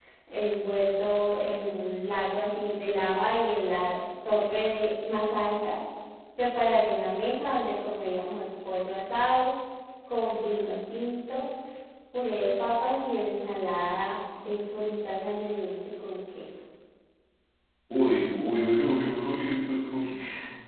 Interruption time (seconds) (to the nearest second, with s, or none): none